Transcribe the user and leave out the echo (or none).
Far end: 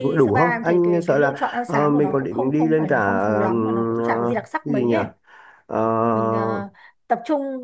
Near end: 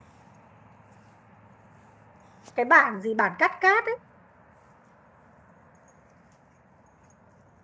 cái bản gì bản cắt cát